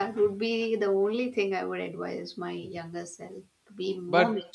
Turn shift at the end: No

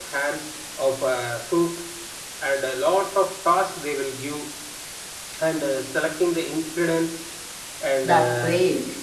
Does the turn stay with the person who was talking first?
Yes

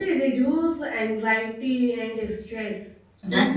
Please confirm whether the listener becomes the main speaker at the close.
No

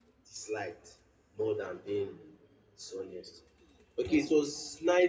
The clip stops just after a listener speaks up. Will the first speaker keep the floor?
Yes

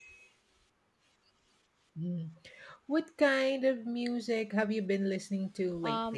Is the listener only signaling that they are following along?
No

